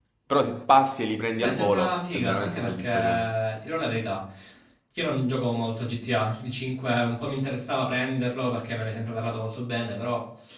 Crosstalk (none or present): present